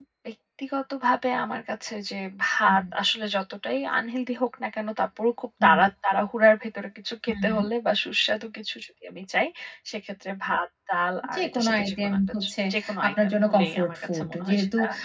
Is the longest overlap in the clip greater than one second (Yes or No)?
Yes